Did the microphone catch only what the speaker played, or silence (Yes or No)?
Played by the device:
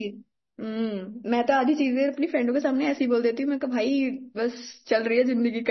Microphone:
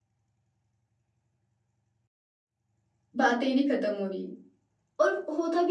No